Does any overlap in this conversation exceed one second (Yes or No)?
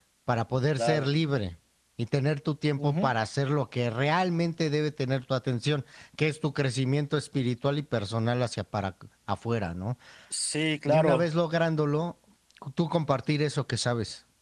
No